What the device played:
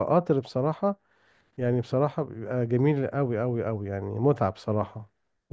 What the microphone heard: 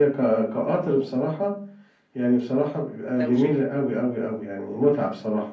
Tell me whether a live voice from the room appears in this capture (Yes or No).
Yes